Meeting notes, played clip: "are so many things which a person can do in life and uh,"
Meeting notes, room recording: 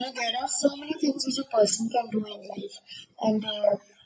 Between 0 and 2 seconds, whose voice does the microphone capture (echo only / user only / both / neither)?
echo only